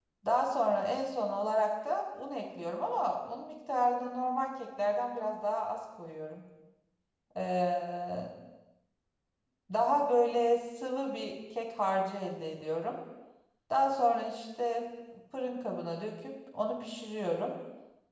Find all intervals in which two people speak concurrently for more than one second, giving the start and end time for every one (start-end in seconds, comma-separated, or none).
none